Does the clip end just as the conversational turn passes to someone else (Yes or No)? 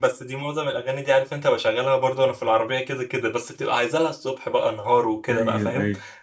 Yes